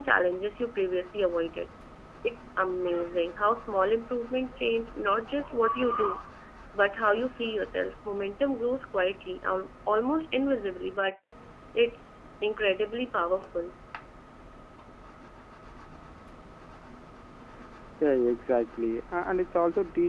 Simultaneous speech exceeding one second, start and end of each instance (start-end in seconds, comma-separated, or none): none